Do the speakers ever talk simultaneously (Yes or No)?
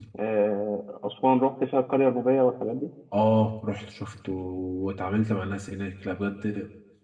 No